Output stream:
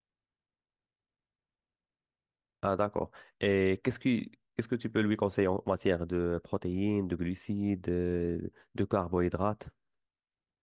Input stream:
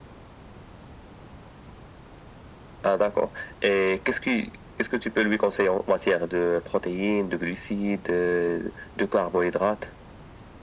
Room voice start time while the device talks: none

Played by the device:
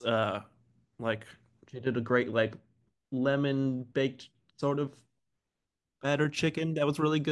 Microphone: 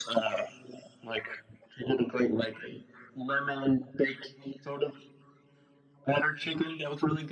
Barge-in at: none

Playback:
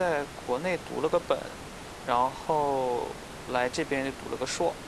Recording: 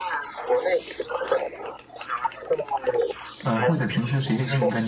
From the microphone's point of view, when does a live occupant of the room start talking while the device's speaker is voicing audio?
3 s

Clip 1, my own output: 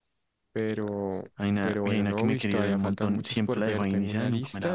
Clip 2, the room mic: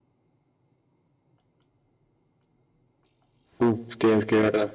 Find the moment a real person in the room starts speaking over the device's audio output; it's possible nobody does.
4 s

